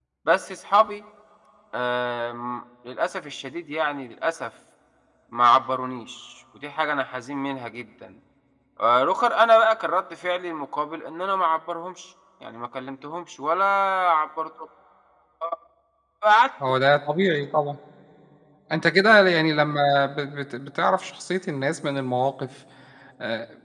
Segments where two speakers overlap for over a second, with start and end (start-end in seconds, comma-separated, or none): none